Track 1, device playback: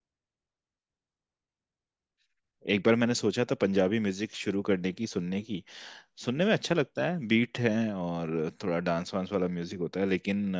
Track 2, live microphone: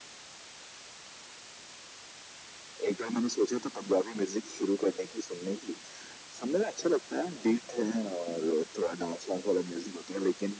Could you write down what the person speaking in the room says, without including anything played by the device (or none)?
none